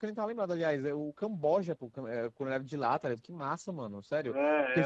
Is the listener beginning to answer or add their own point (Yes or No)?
Yes